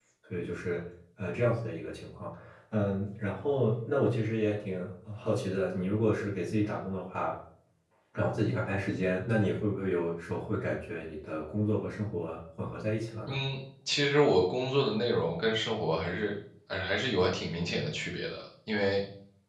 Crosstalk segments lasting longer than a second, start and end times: none

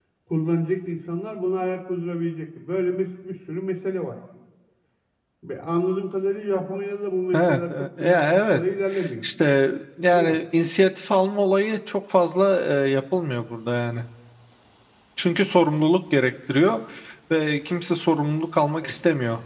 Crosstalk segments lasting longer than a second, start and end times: 7.3-8.6

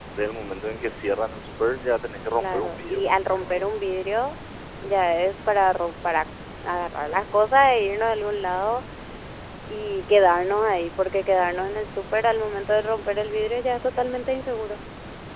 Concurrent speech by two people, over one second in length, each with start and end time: 2.4-3.6

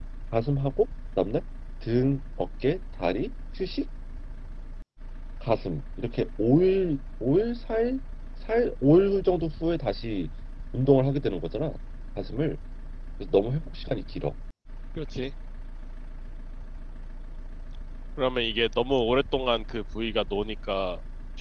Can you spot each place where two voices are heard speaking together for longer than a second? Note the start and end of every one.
none

